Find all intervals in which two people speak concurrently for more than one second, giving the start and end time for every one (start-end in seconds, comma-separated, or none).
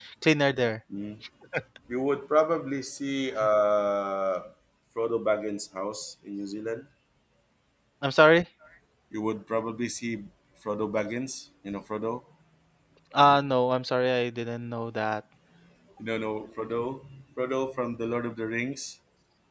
none